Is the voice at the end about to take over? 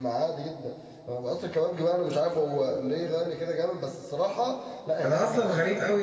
Yes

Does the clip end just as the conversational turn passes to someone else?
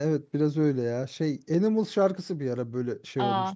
Yes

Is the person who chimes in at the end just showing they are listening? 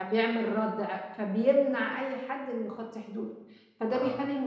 Yes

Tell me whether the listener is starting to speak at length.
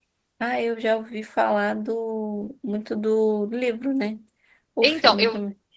Yes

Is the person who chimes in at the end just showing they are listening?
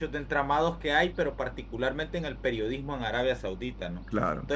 Yes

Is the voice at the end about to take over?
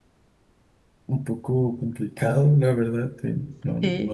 No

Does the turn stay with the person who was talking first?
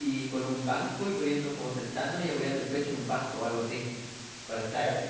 Yes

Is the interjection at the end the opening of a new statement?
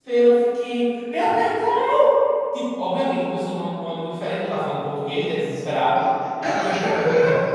Yes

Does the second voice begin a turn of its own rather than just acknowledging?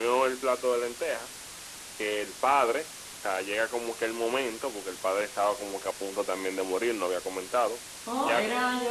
Yes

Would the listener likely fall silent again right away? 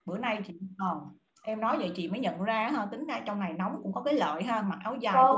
No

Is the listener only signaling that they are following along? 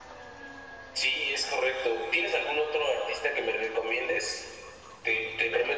Yes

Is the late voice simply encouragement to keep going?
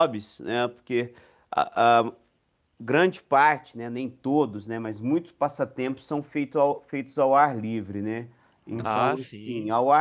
Yes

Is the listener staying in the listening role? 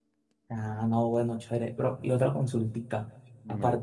Yes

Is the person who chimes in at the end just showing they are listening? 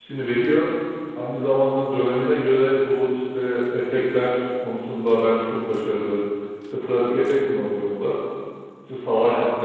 Yes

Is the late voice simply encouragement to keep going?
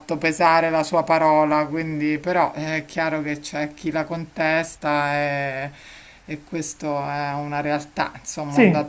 No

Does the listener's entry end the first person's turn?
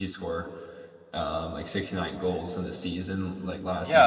Yes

